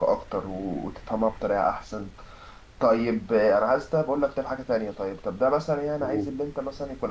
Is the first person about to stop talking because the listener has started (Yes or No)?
No